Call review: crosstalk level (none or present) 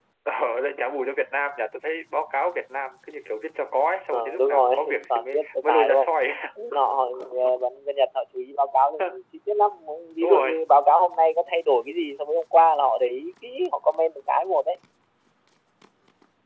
present